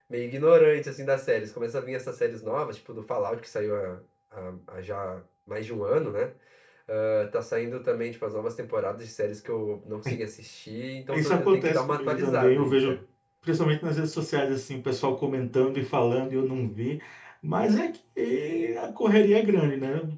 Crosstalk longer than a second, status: present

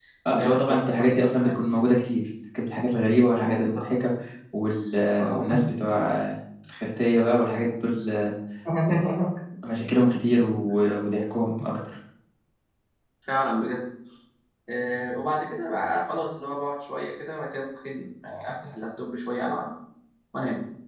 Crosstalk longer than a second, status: present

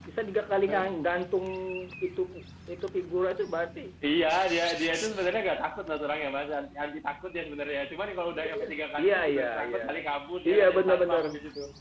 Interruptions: present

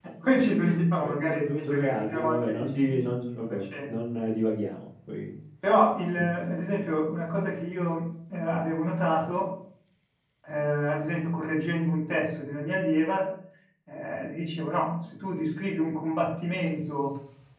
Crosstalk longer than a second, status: present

